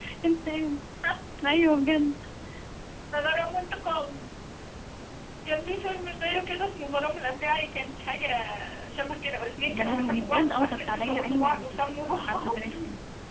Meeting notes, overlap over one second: present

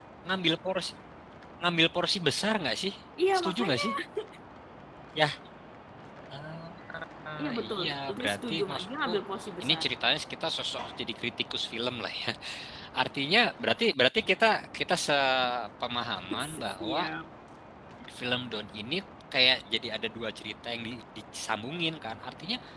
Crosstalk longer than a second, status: present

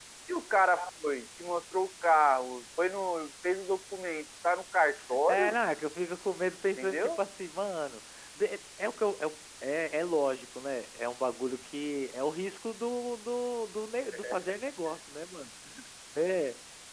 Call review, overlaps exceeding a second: none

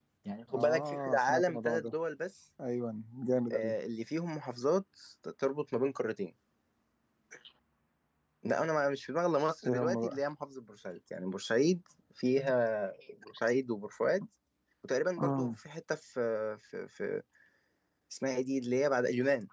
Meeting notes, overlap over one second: present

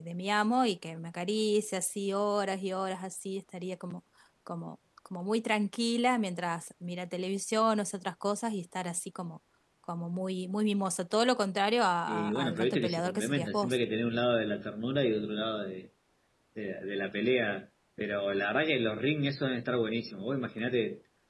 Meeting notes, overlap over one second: present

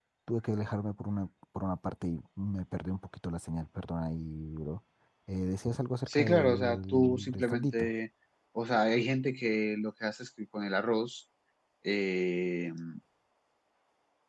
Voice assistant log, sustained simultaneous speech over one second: present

